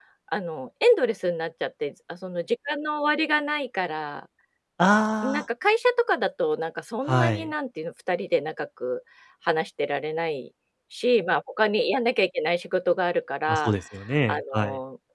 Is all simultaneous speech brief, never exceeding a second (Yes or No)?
Yes